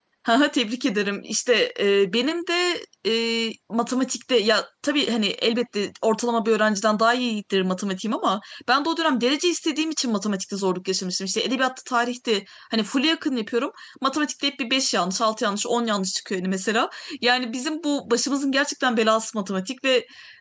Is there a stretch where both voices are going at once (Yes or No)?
No